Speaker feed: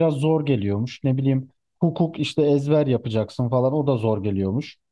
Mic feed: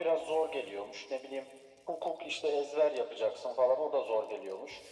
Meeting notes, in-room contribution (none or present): none